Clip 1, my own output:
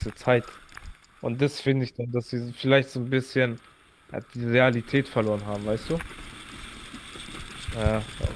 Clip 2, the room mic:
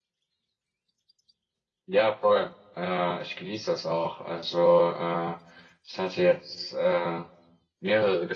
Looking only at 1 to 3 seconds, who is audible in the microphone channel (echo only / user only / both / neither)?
user only